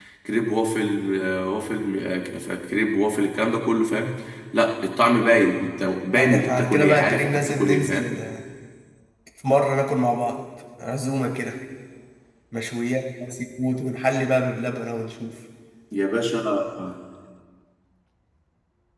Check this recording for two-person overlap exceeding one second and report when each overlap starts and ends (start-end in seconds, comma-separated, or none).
6.1-8.2